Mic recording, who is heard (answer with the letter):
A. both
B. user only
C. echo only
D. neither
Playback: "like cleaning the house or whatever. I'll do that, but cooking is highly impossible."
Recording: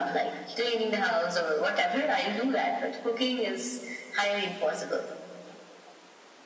C